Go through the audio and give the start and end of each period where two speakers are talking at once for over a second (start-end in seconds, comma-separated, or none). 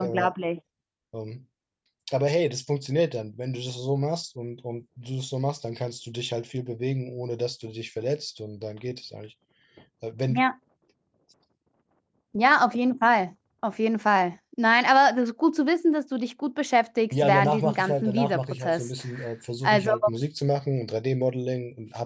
17.1-18.9